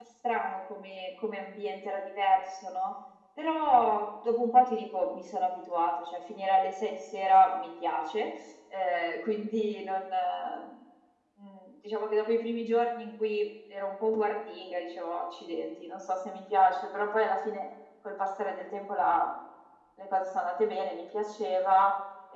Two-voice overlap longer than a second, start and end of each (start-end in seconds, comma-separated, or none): none